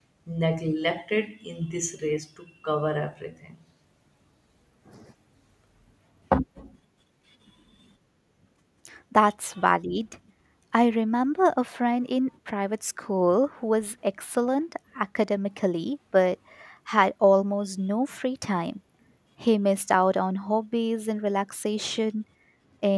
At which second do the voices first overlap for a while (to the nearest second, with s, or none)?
none